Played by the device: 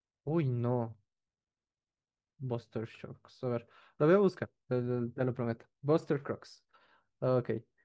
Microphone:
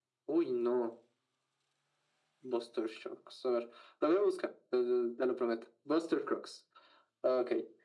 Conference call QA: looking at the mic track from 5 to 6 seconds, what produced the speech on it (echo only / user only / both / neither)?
echo only